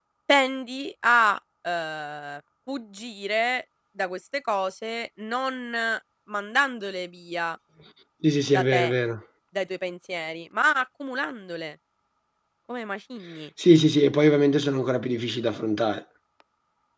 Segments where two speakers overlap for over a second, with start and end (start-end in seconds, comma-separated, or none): none